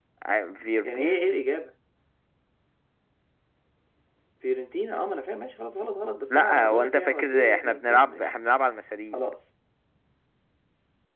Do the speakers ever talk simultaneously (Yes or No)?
Yes